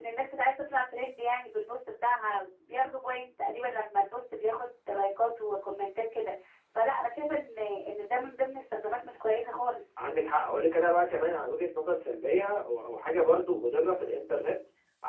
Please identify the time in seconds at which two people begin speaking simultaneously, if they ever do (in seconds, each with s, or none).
none